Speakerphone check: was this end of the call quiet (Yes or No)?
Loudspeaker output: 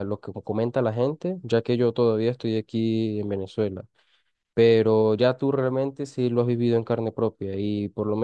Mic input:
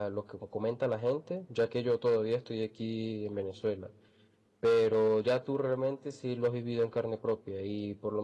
Yes